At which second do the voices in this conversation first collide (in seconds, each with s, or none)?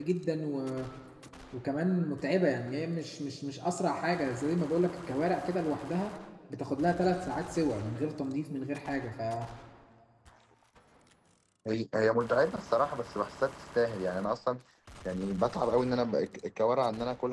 none